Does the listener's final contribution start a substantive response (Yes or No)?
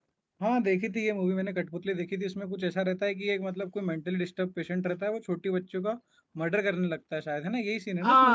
Yes